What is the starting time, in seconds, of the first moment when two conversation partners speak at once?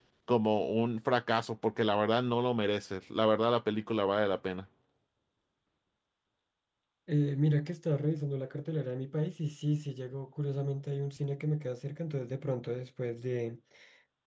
none

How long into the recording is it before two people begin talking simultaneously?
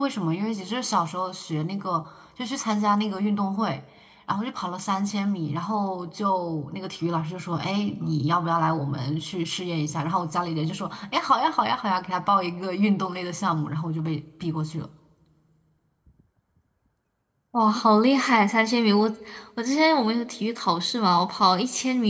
none

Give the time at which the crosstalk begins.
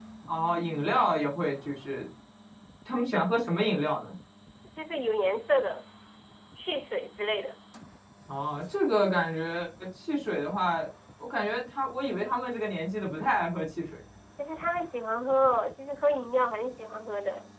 none

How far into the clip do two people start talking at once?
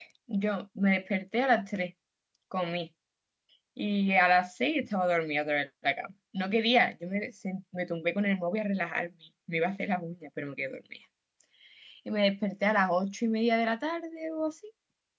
none

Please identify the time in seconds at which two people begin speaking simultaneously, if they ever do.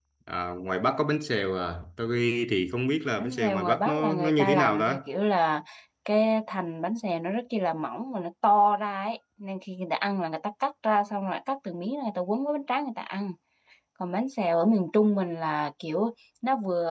3.2 s

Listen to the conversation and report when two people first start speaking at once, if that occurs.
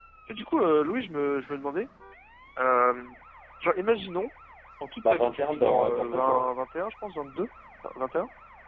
5.1 s

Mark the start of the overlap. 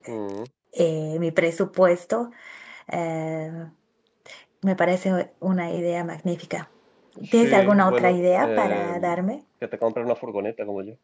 7.3 s

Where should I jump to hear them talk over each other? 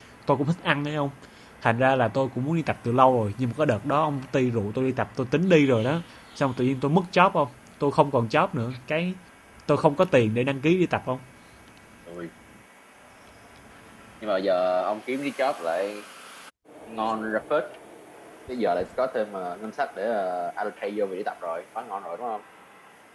none

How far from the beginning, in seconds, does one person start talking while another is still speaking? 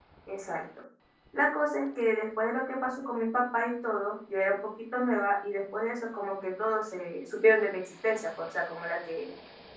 none

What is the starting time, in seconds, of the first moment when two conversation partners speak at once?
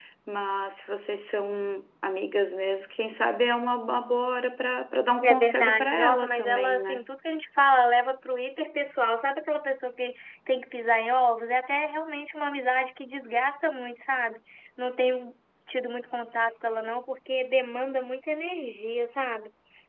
5.2 s

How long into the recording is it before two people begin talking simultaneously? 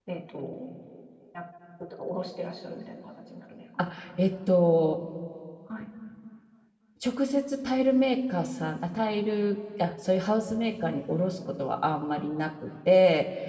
none

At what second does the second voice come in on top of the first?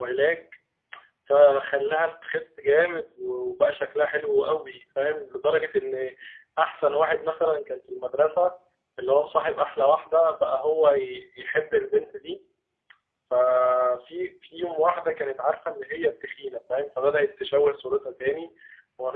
none

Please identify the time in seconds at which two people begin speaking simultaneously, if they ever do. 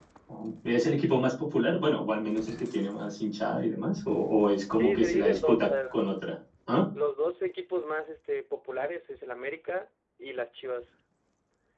4.8 s

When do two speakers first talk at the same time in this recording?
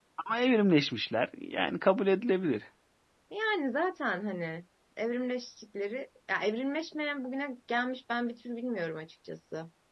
none

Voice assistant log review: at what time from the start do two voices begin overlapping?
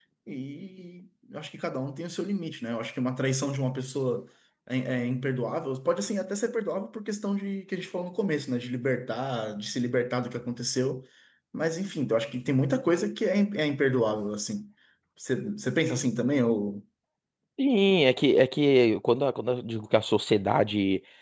none

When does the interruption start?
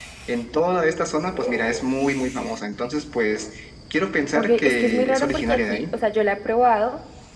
4.3 s

